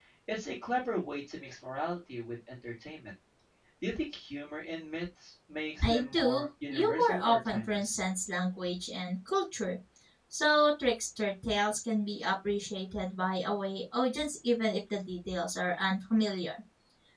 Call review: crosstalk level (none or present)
present